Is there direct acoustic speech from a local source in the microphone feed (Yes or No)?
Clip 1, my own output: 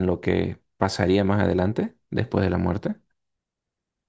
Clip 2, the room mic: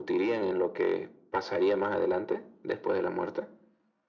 No